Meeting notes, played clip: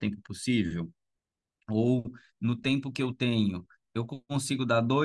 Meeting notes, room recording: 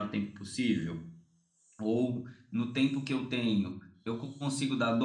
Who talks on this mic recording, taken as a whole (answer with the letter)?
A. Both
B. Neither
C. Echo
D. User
C